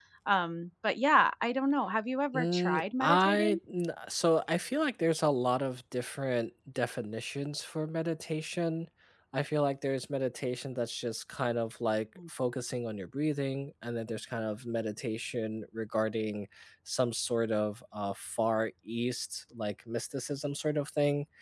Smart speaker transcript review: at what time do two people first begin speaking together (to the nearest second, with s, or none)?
2 s